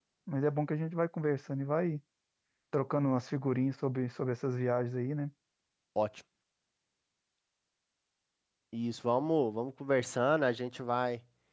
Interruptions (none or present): none